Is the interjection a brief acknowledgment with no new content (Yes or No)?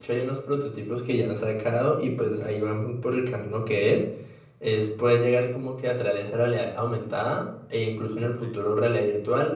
Yes